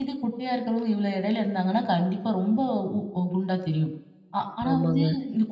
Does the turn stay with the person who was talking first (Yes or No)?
Yes